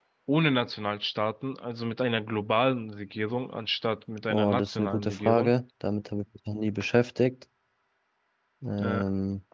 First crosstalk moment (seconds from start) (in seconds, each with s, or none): 4.3 s